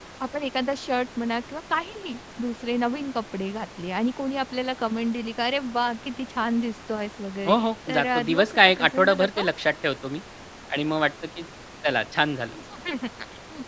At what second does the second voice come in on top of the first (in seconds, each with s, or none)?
7.4 s